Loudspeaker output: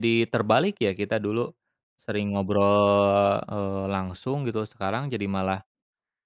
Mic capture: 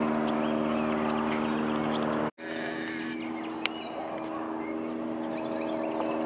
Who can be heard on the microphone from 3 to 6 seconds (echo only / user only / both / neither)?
neither